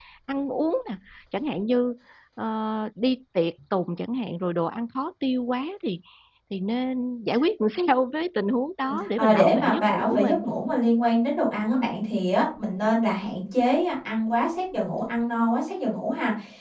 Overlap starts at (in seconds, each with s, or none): 8.8 s